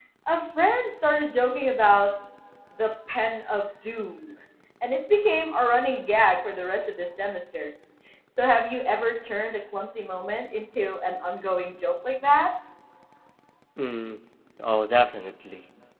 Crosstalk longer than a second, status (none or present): none